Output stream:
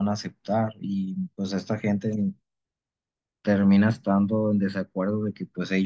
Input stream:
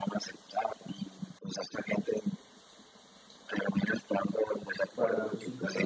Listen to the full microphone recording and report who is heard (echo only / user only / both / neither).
both